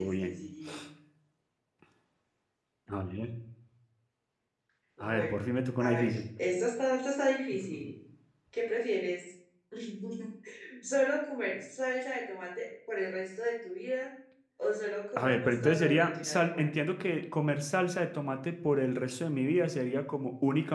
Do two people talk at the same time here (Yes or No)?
Yes